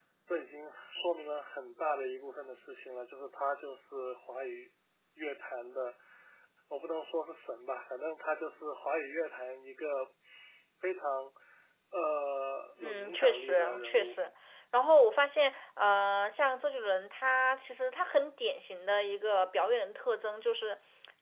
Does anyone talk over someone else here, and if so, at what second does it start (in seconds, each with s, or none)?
12.8 s